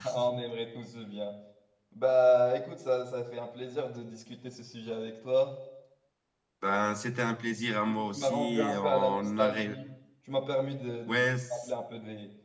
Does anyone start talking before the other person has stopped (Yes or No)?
Yes